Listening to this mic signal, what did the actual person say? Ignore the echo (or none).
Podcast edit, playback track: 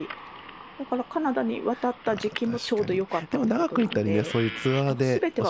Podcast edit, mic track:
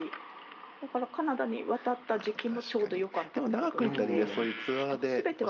うんうんうん。